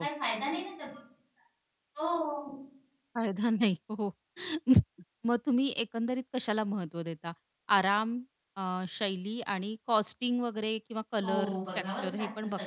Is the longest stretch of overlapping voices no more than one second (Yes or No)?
No